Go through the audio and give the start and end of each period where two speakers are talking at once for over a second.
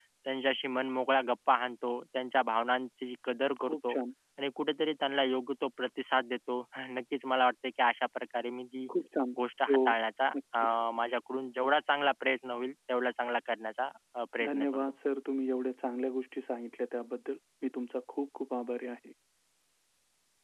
none

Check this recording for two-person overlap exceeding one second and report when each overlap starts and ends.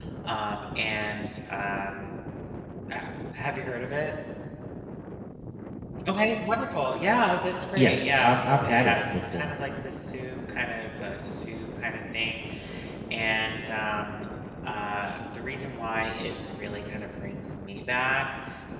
7.8-9.5

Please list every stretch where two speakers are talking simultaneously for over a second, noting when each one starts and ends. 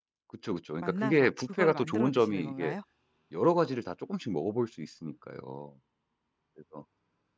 0.8-2.8

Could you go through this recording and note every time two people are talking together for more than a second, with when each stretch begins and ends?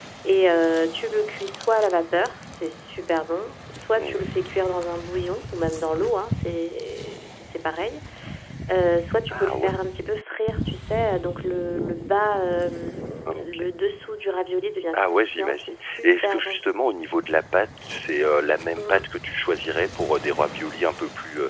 14.9-16.6

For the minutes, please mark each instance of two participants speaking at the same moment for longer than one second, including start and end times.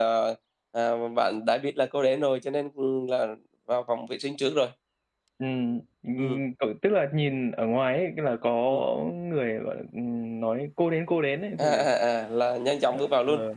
none

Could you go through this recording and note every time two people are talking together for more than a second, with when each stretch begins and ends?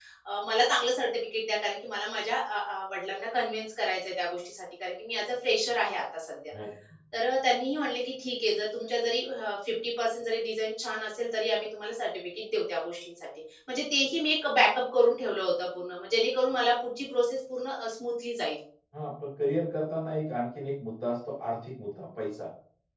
none

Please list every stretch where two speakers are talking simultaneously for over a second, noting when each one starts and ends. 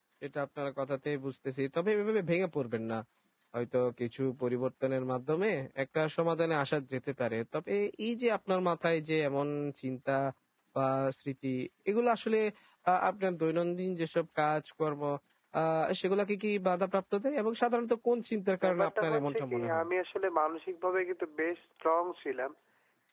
18.6-19.8

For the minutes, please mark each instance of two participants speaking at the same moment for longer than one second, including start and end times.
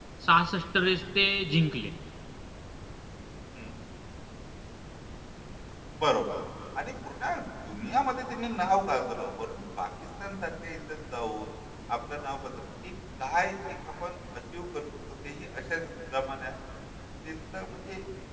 none

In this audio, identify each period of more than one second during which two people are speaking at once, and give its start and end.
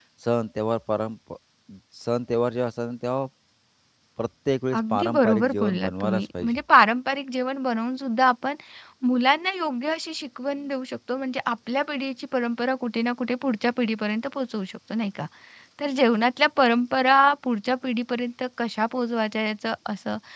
4.8-6.6

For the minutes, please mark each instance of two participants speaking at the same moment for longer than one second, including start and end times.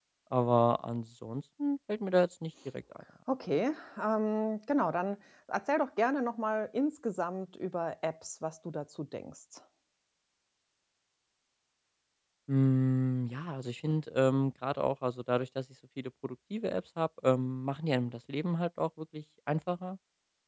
none

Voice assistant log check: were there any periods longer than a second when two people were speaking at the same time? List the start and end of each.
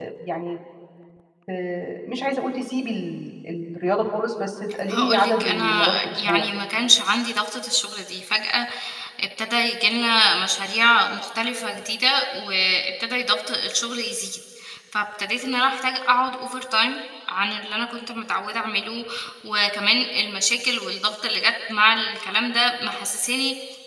4.9-6.5

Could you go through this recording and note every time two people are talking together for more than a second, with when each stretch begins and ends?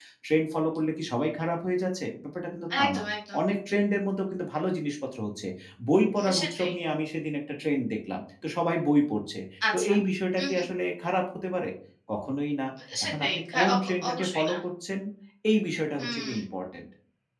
13.0-14.5

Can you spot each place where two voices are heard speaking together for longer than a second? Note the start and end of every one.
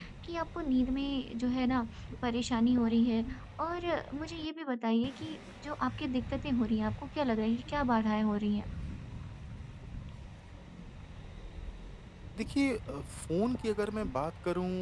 none

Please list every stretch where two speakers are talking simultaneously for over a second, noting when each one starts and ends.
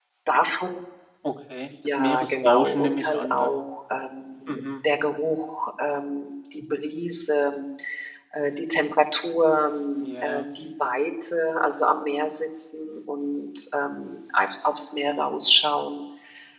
1.8-3.6

